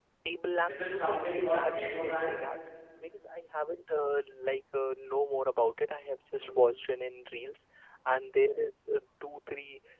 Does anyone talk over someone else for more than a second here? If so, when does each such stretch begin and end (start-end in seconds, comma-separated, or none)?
0.7-2.4